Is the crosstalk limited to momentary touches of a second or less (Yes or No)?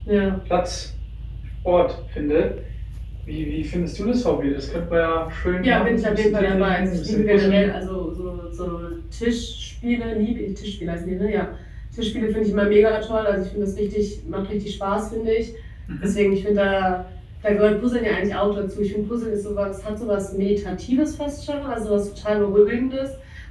No